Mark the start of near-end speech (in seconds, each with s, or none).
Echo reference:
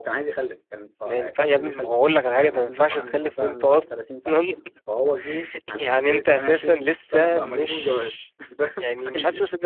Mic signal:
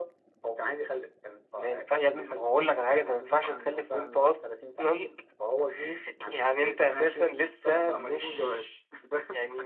none